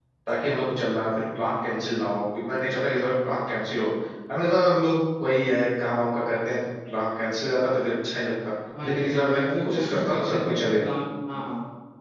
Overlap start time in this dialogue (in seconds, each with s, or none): 8.7 s